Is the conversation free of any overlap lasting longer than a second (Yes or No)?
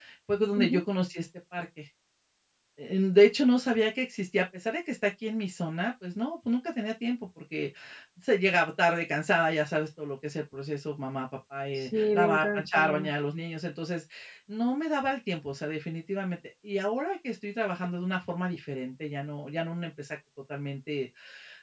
No